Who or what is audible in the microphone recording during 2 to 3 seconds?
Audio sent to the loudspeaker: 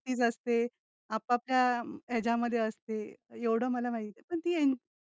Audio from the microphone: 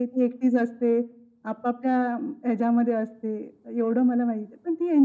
echo only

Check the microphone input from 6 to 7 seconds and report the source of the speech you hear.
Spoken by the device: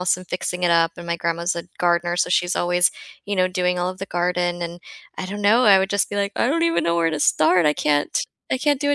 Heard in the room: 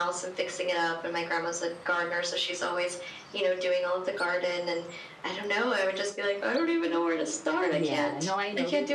echo only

